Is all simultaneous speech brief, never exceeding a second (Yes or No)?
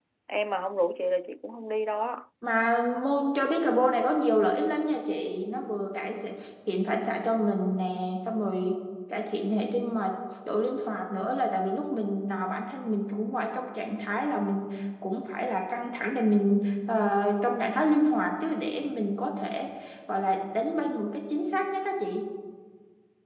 Yes